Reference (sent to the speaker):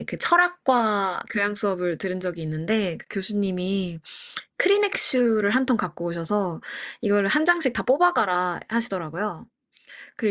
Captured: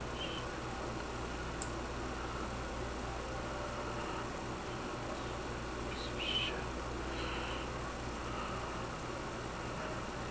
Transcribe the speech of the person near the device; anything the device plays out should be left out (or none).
none